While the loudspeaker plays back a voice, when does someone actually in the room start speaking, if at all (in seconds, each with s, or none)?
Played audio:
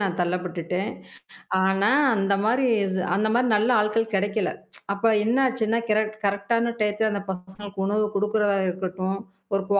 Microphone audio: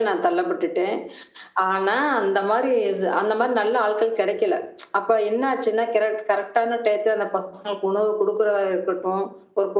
none